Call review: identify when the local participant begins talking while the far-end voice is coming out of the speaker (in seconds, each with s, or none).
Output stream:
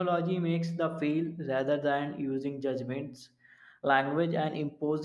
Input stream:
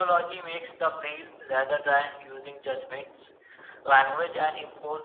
none